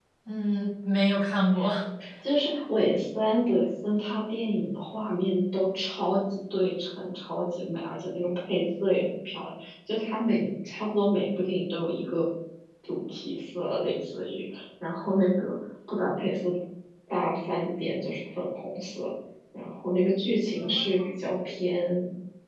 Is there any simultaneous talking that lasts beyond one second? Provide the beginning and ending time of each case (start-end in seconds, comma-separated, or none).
none